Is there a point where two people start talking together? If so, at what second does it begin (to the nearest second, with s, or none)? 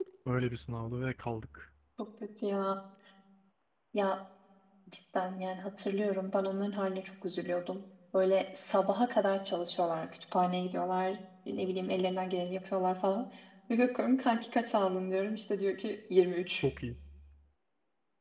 none